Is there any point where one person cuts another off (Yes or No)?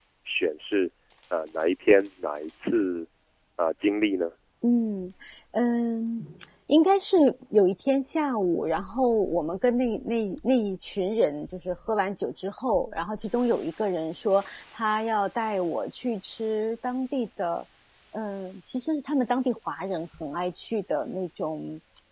No